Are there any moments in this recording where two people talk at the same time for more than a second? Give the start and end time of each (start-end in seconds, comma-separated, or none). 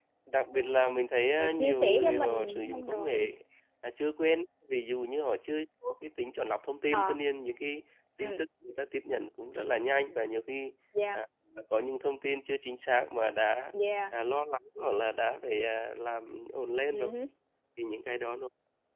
1.5-3.2